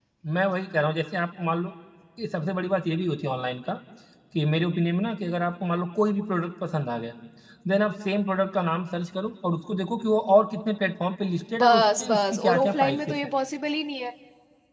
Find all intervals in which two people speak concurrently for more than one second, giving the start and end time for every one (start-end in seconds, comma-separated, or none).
11.6-13.3